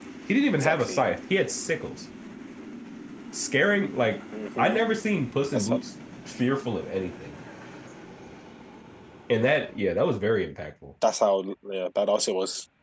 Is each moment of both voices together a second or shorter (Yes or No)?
Yes